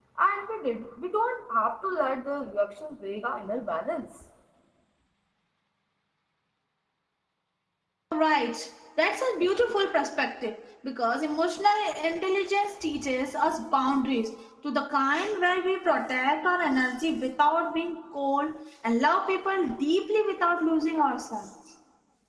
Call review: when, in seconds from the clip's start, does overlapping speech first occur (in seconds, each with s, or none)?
none